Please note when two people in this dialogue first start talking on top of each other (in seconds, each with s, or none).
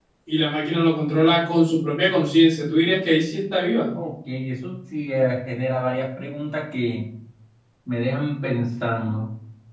none